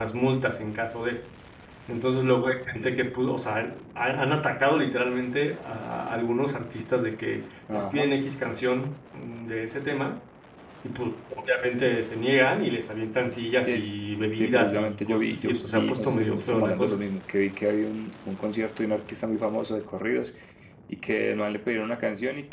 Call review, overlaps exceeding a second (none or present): present